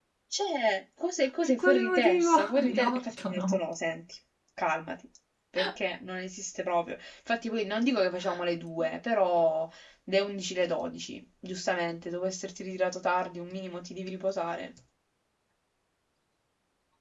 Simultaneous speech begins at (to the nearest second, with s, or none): 1 s